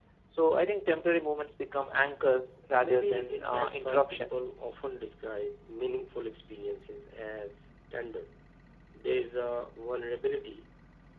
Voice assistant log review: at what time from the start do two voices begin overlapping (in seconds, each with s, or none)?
2.8 s